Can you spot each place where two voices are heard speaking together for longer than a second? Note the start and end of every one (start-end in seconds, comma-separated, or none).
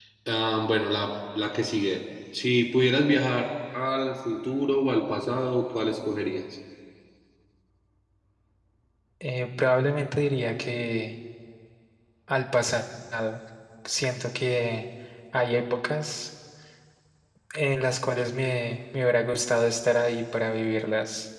none